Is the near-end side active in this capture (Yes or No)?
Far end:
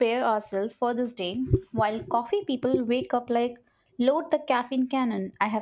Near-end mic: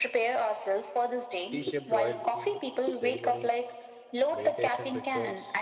Yes